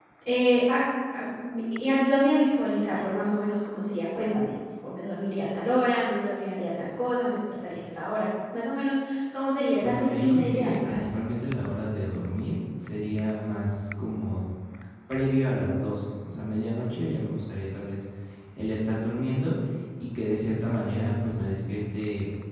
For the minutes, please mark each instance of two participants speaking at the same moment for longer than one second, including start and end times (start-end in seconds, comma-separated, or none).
9.8-11.2